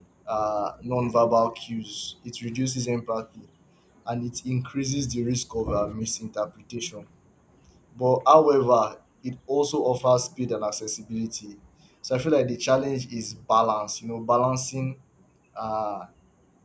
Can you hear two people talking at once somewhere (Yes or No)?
No